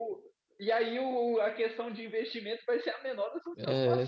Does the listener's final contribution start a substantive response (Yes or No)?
Yes